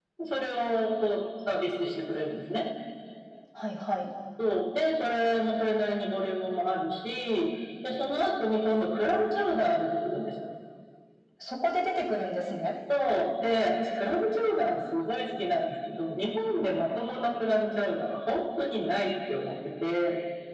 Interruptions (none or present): none